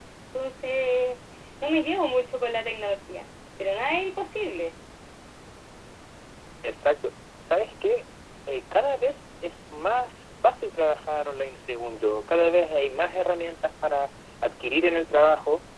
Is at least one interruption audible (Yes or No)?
No